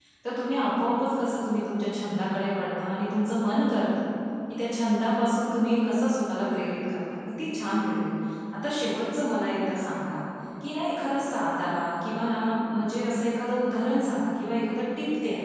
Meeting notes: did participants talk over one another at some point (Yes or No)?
No